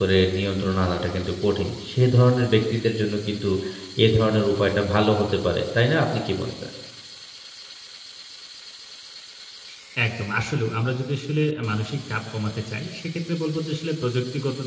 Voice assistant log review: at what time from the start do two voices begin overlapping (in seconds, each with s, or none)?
none